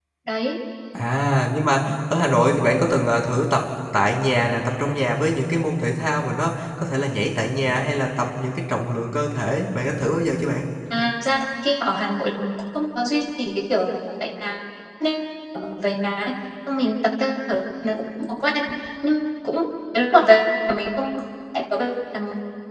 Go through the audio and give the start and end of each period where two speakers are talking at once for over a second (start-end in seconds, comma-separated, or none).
none